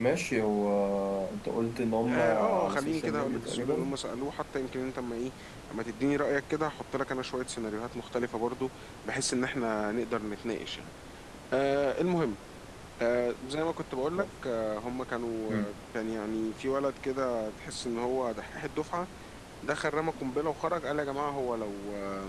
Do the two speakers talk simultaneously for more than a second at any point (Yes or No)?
Yes